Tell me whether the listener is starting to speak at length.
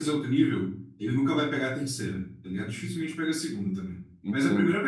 Yes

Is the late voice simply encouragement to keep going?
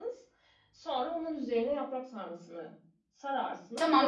No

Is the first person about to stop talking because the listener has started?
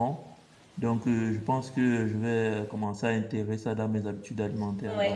Yes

